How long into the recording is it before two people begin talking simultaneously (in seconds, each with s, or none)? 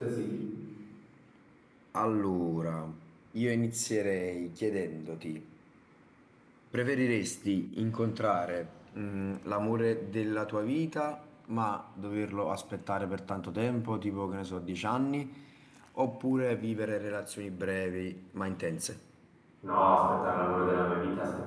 none